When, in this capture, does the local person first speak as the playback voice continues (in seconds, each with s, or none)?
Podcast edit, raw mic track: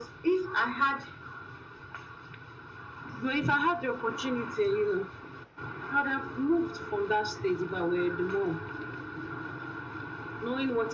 none